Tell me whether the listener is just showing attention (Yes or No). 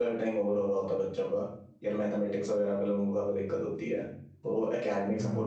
Yes